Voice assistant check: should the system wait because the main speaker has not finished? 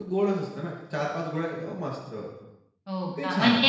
No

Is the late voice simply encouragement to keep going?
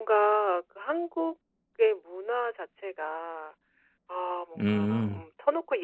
Yes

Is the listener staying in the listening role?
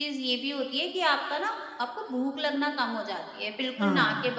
Yes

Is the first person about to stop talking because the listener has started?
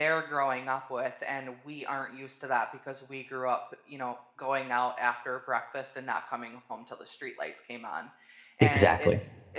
No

